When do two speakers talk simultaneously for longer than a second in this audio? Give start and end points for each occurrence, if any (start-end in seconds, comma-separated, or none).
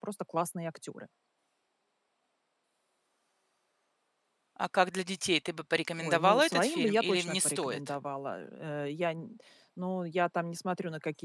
6.0-7.8